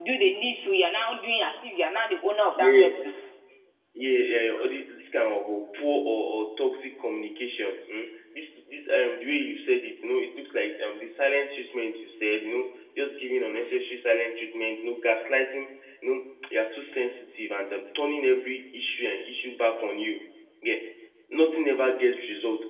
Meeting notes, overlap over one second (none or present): none